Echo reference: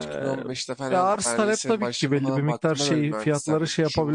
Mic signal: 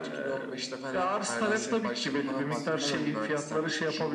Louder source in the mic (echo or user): echo